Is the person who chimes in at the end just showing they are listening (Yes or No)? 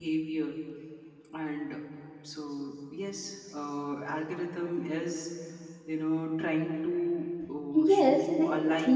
No